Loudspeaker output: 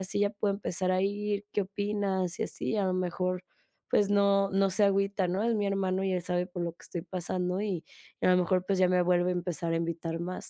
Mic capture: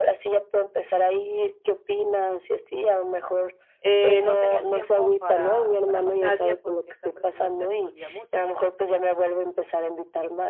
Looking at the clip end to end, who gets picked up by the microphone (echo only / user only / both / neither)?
both